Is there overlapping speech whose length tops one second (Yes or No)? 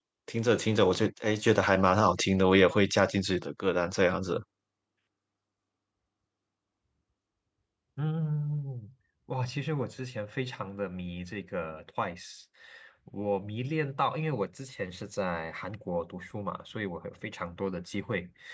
No